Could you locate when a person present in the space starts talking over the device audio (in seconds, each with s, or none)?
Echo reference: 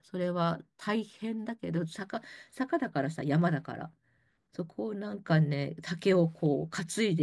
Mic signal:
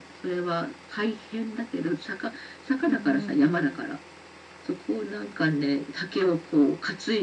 2.9 s